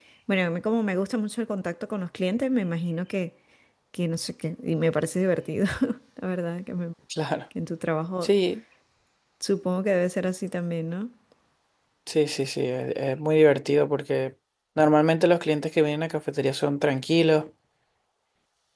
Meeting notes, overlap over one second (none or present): none